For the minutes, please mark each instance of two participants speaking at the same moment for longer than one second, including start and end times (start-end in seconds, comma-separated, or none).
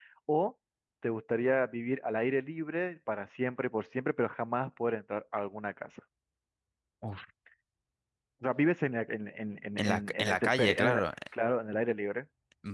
9.8-11.0